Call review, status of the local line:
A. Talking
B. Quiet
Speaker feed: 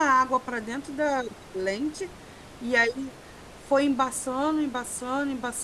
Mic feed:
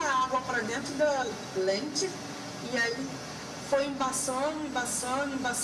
B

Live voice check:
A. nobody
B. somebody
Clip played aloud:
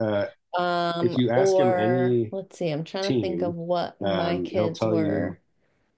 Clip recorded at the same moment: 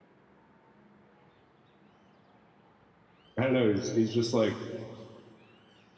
B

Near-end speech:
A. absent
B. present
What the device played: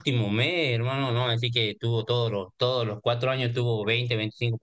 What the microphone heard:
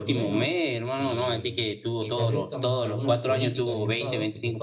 B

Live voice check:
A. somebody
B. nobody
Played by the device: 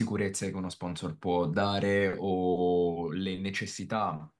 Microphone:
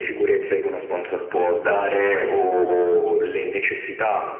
B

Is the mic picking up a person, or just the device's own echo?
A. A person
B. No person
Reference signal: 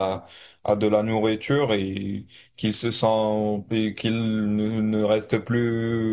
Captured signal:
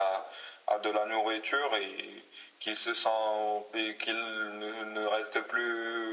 B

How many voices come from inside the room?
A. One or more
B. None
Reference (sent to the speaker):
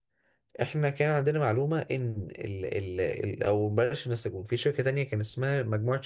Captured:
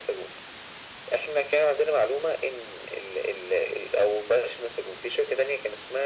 B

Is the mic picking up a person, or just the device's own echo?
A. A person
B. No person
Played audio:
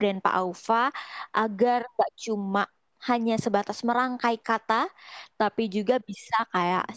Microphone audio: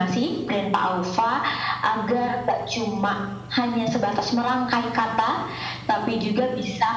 B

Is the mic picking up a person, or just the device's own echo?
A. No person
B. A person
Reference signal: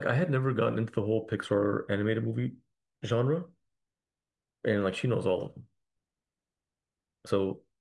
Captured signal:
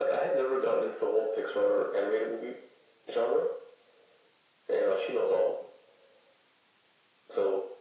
A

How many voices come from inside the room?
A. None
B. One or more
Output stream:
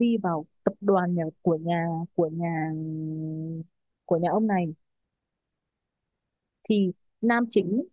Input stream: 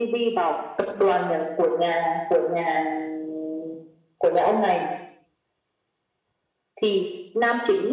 A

